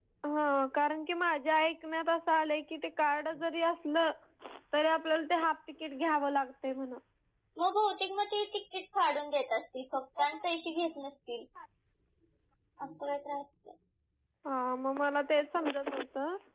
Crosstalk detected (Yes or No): No